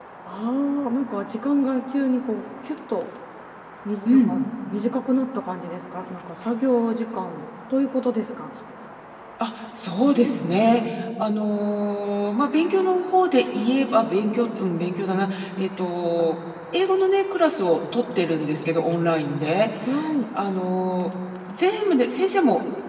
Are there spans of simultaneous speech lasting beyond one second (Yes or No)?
No